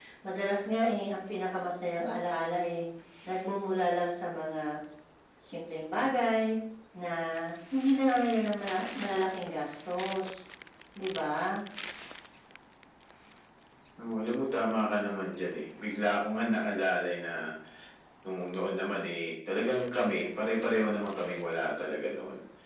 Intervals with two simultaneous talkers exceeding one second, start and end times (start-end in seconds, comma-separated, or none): none